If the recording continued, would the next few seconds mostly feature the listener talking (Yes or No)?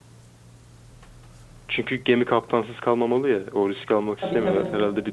No